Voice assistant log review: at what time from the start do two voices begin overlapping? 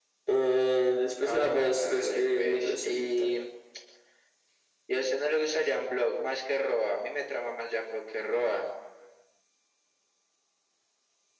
1 s

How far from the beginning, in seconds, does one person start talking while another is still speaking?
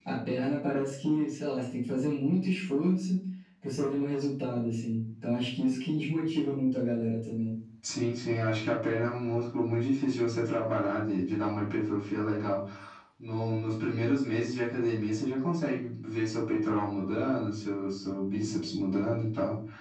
none

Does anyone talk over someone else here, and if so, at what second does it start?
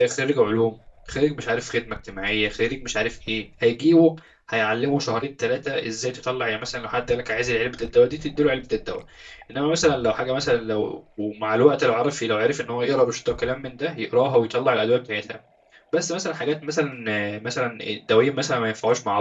none

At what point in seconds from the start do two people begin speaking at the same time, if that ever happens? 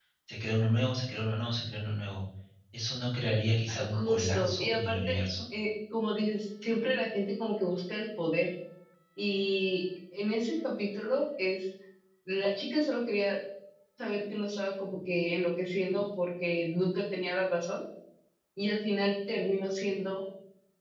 4 s

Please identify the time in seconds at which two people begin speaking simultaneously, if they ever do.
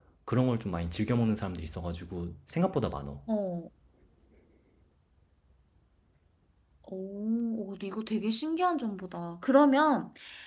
none

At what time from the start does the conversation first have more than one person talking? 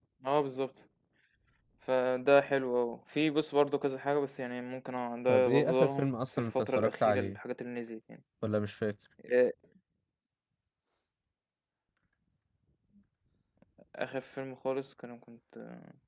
5 s

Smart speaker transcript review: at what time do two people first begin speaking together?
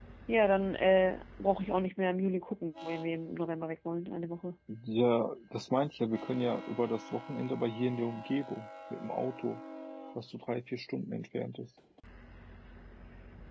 none

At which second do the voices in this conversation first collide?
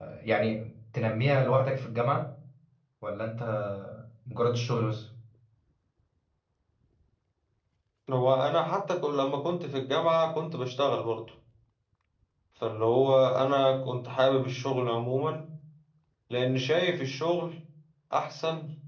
none

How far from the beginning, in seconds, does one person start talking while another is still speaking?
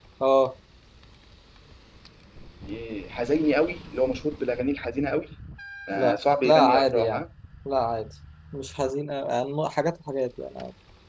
6 s

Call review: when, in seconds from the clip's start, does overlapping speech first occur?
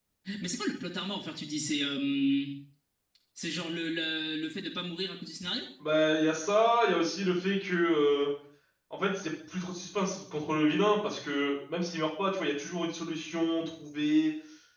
none

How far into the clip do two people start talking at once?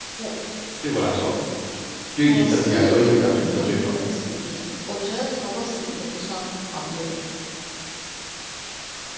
2 s

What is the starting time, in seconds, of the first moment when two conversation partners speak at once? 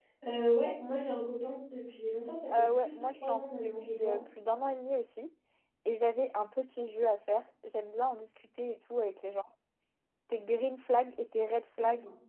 2 s

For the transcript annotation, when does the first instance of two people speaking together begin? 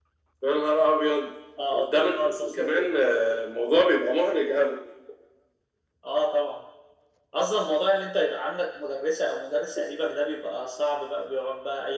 2 s

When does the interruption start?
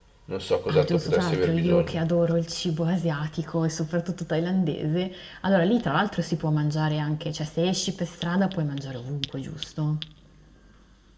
1 s

